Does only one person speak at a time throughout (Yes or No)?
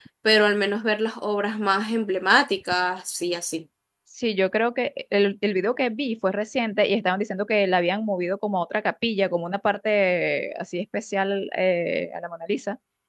Yes